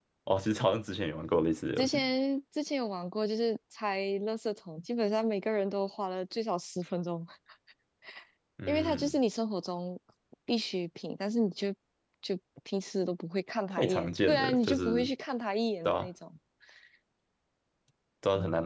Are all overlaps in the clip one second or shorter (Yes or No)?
No